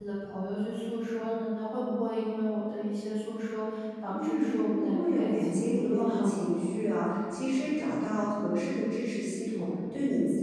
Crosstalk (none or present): present